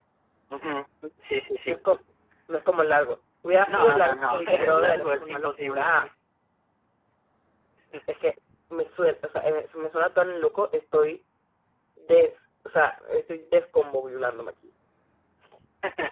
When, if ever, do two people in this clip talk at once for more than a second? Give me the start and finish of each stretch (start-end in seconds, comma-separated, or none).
3.7-5.9